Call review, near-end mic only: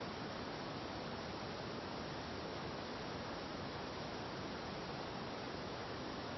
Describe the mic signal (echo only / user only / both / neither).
neither